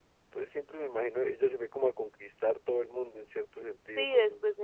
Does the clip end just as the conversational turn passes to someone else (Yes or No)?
Yes